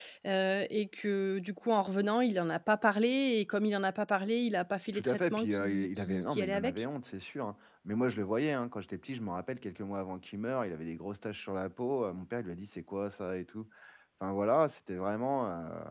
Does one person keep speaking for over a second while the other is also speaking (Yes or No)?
Yes